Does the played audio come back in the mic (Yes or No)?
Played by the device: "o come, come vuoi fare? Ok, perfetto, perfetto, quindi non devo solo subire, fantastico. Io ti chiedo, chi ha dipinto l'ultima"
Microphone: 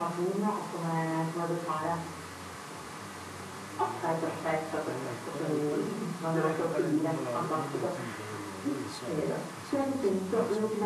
Yes